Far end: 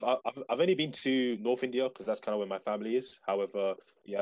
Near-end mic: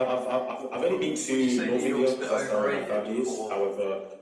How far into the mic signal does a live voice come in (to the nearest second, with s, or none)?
1 s